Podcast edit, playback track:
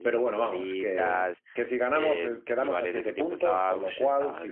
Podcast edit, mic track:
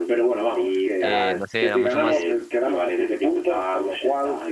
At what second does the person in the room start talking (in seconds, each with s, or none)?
1.0 s